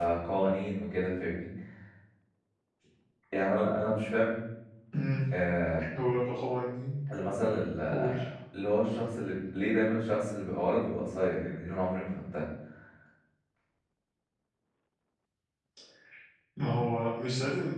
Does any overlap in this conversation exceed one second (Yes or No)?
No